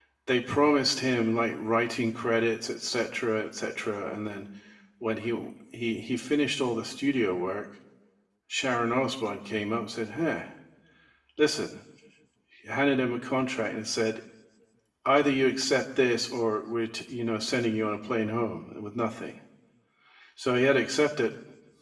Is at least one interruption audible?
No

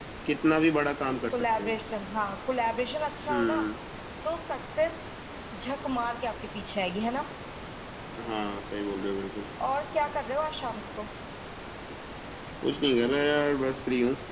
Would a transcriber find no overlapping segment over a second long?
Yes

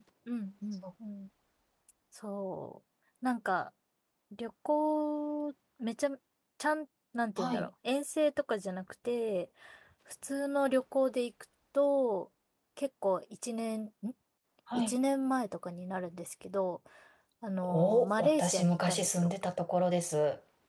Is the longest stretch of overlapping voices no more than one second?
No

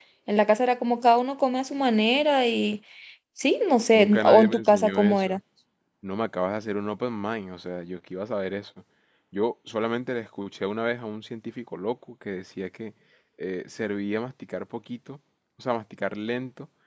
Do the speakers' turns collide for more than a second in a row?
Yes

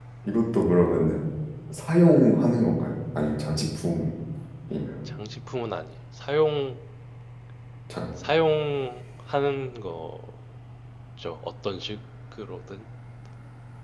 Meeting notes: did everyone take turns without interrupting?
Yes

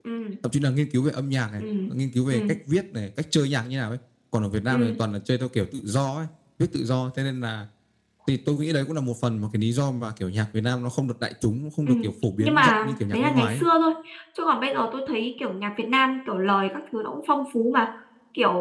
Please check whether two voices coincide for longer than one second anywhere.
Yes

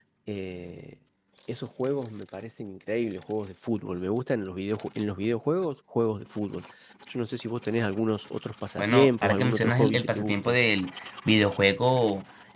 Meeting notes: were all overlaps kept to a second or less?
No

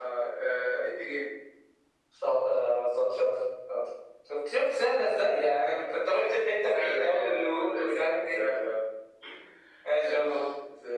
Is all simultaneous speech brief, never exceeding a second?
No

